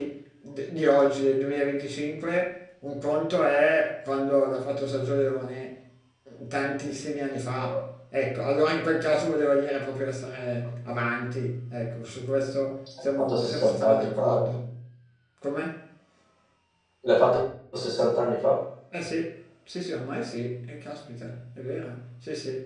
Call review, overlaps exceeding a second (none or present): present